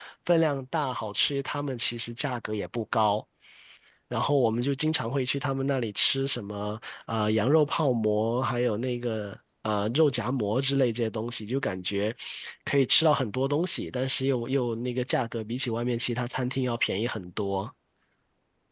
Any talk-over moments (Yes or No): No